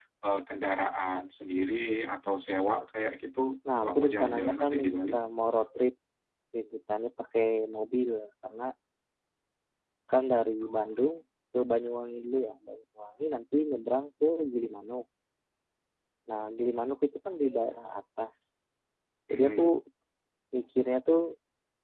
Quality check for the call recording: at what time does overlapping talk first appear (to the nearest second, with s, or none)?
4 s